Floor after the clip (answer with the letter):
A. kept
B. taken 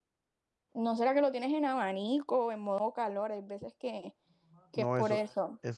B